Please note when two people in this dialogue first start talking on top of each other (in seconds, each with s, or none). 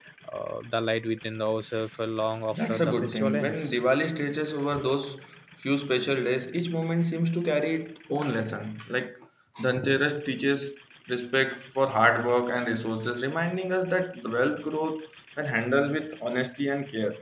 2.5 s